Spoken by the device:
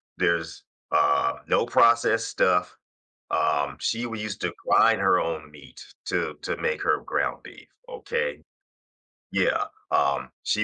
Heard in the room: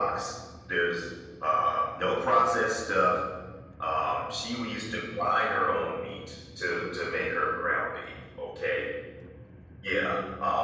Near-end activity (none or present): none